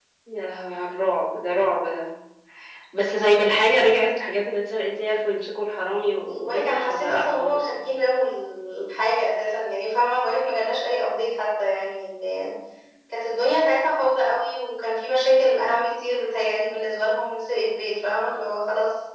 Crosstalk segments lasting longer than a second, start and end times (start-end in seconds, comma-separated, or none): 6.4-7.7